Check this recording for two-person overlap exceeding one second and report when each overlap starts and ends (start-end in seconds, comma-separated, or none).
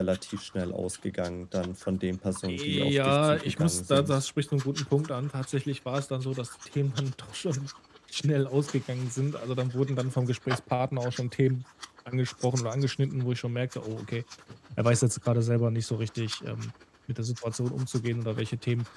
2.5-4.2